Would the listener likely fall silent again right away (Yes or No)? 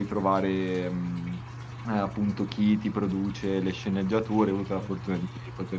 Yes